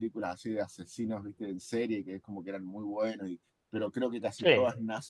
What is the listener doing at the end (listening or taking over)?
listening